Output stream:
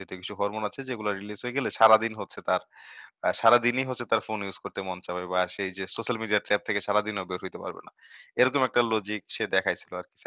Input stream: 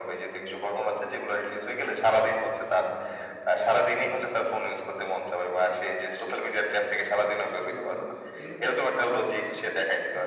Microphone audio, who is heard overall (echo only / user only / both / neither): both